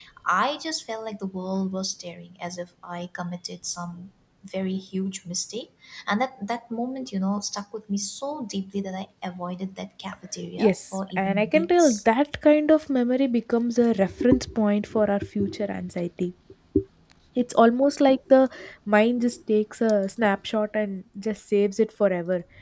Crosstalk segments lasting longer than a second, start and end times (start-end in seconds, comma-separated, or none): 10.6-12.0